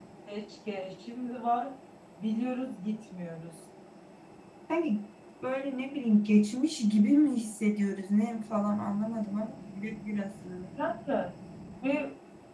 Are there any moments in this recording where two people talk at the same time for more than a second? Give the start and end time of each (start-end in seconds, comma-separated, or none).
none